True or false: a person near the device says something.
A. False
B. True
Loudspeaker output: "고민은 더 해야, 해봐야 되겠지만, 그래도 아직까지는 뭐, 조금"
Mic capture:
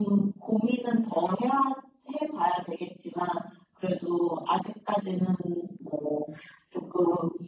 A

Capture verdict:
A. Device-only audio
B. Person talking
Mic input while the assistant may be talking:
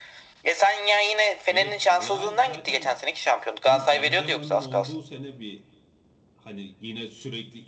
B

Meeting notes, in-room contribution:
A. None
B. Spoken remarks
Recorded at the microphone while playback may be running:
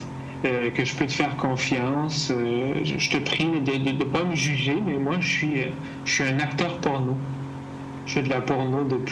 A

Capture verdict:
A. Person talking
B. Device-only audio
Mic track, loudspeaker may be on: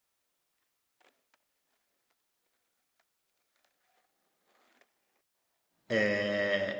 A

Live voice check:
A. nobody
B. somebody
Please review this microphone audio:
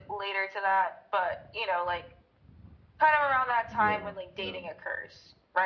B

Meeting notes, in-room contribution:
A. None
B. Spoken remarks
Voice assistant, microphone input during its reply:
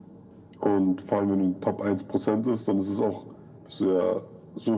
A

